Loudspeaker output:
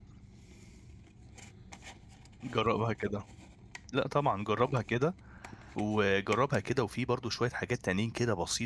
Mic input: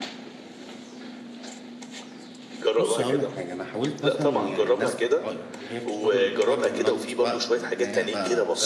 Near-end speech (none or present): present